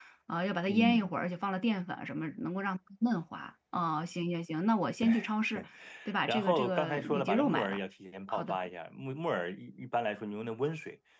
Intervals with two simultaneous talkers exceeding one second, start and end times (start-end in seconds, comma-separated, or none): 6.3-7.8